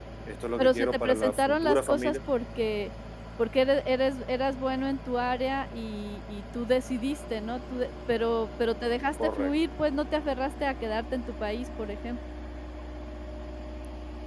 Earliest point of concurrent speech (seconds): 1 s

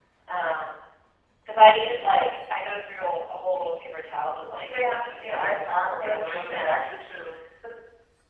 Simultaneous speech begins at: 5 s

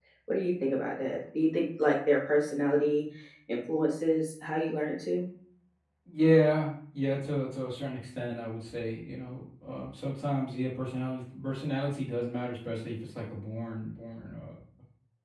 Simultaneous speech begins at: none

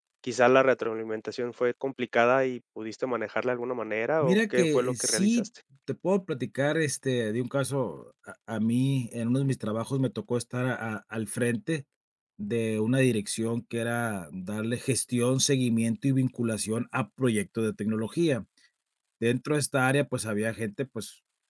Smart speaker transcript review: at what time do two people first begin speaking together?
4 s

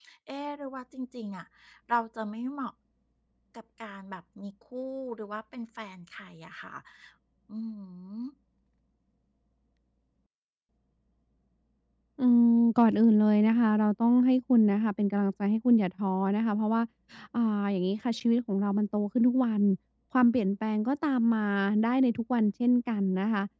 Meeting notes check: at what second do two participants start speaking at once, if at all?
none

